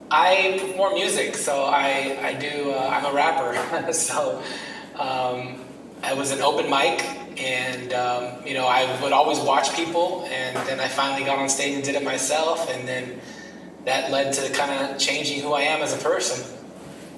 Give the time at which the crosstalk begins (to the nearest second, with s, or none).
none